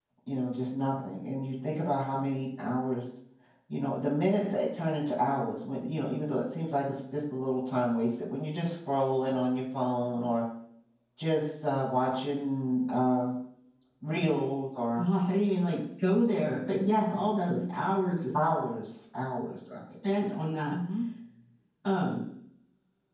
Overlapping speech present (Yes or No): No